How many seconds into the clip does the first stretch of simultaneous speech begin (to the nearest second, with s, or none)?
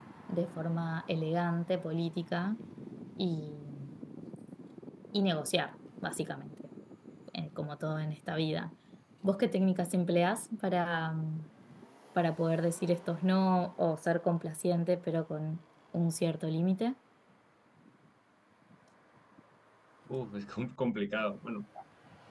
none